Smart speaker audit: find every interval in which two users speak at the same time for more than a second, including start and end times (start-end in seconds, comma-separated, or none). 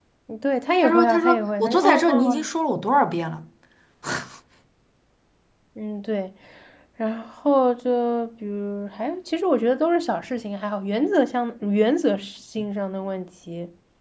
0.8-2.5